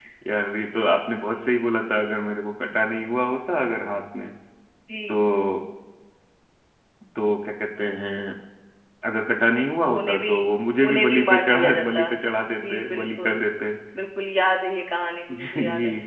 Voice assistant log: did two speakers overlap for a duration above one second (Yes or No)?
Yes